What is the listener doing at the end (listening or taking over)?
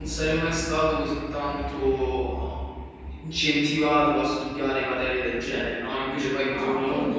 taking over